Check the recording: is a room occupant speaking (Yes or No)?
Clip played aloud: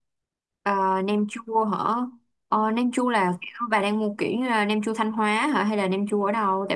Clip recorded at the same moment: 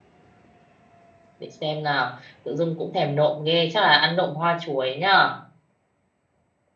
Yes